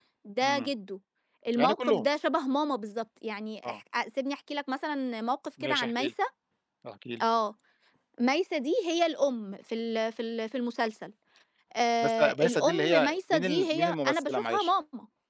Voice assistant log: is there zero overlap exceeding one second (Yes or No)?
No